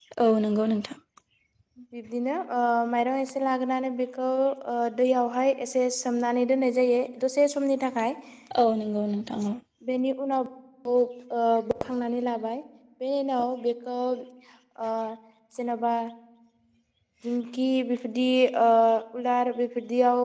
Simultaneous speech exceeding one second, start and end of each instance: none

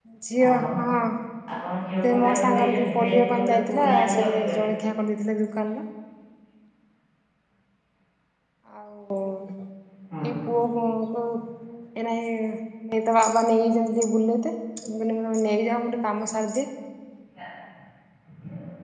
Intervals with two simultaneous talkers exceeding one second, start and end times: 2.0-4.6

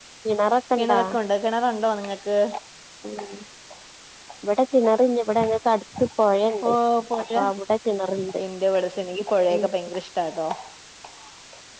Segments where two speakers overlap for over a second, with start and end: none

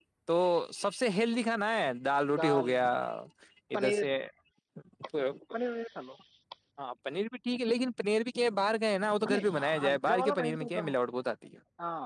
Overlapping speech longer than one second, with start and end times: 9.3-10.9

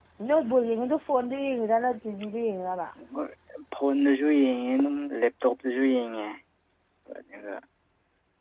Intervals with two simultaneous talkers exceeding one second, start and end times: none

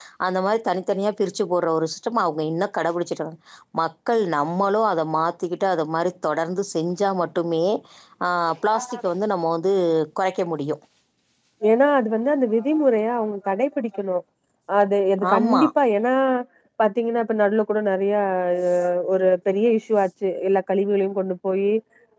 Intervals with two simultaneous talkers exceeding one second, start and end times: none

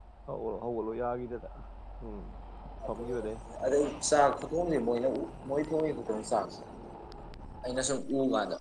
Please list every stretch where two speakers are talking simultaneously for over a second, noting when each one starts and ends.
none

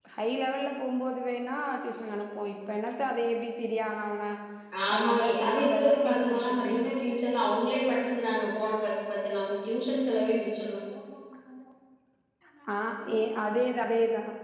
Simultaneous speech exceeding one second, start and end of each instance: 4.9-6.7

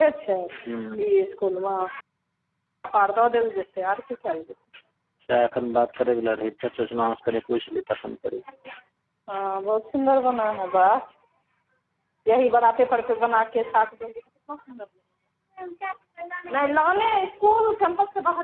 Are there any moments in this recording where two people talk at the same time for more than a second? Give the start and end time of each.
none

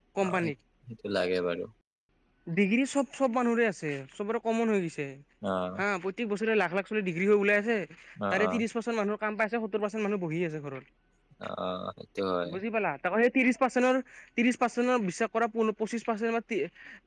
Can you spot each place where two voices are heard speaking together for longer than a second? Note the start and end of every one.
none

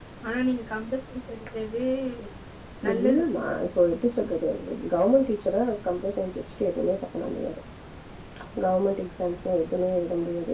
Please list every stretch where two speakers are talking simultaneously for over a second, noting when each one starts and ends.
none

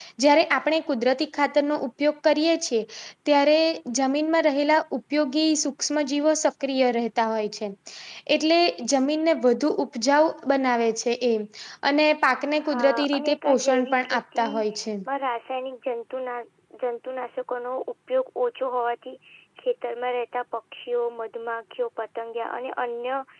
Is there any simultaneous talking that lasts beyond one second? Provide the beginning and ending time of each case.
12.7-14.5

